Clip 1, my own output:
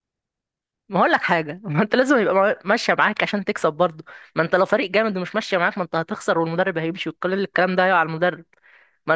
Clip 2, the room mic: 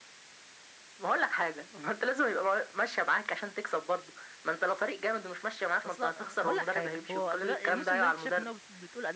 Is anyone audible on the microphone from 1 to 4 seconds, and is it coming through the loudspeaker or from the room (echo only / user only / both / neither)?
echo only